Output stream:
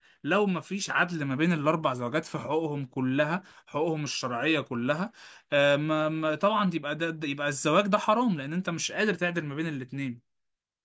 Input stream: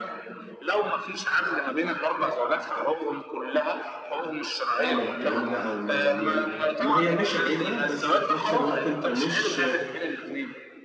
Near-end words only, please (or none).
أعمل الكلام ده أو ما يعني ما هي مش عيبة بس في نفس الوقت أنت مش